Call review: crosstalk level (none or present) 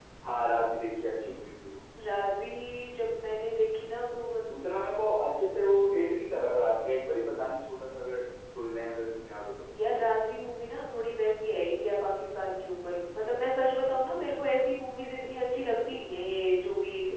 none